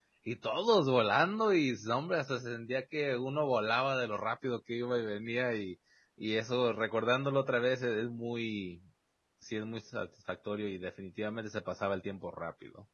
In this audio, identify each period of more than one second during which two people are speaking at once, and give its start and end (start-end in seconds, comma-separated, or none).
none